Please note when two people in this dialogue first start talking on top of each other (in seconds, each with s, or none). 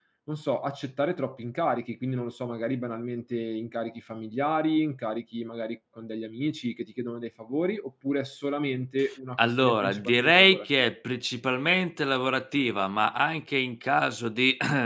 9.4 s